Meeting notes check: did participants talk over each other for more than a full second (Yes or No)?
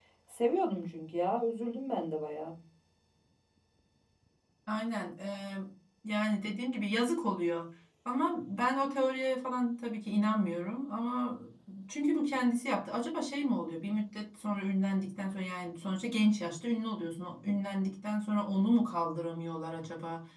No